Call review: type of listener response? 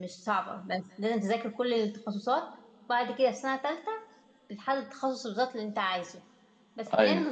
listening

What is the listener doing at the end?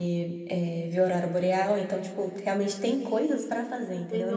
taking over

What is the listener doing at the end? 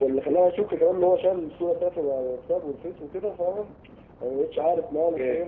listening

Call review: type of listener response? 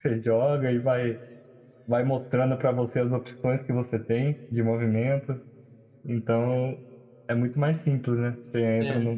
listening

